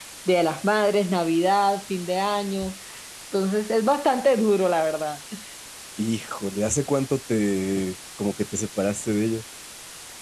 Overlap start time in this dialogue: none

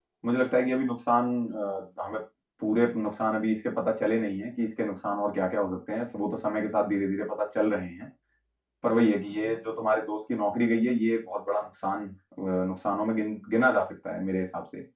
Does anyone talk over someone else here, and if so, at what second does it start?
none

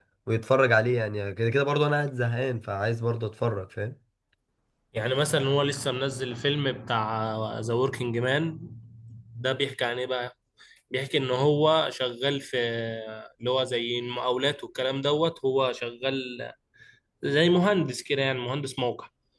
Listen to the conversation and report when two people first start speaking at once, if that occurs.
none

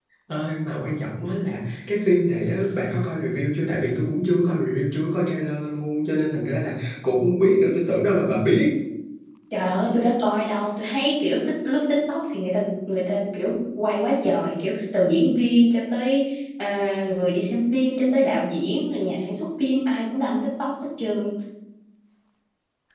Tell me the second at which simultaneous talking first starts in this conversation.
none

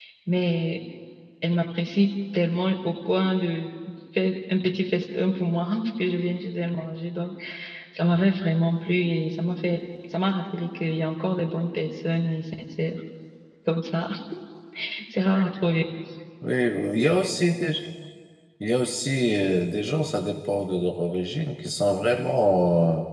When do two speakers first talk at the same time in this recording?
none

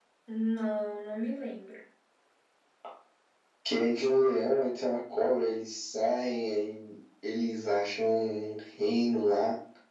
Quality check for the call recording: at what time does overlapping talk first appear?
none

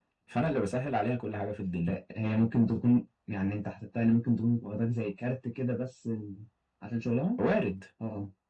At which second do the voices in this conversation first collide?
none

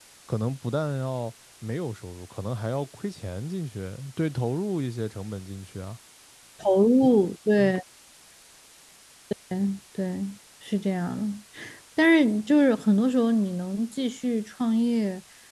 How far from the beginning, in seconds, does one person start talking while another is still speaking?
none

